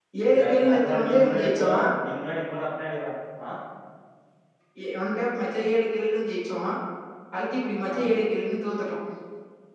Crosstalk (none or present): present